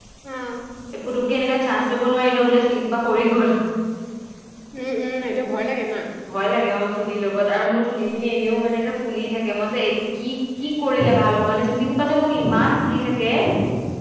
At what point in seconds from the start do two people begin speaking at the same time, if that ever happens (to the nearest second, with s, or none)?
none